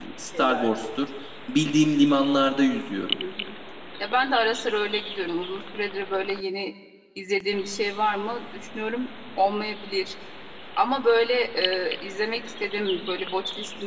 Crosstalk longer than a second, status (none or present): none